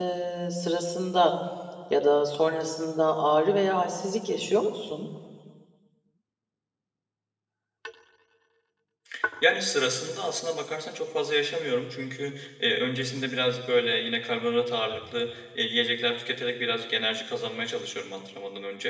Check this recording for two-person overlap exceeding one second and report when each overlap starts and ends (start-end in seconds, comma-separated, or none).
none